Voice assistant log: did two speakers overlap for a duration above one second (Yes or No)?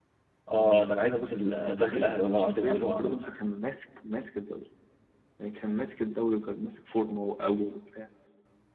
Yes